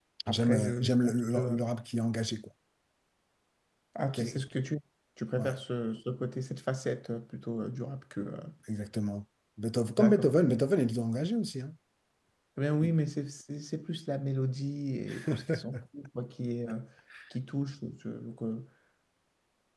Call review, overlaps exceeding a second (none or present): present